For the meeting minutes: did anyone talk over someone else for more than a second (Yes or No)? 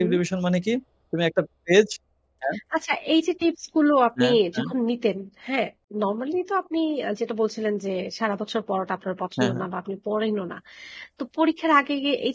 No